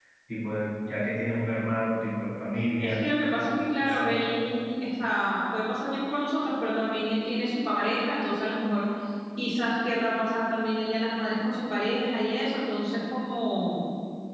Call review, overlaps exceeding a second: none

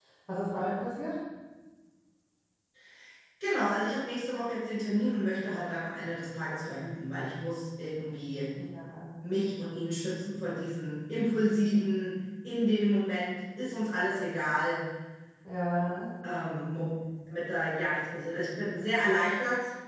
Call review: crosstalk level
none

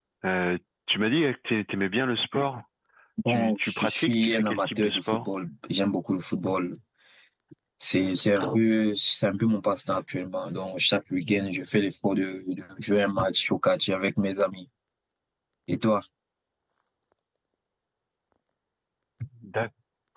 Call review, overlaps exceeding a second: present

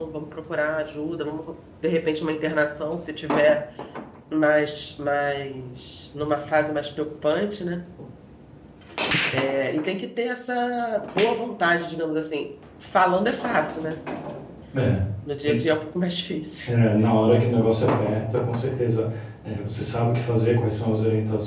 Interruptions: none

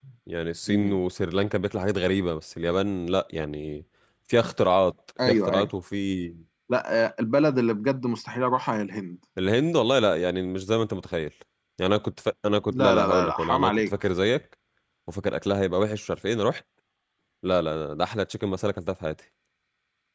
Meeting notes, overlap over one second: present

